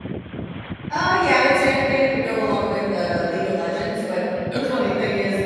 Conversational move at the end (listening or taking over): listening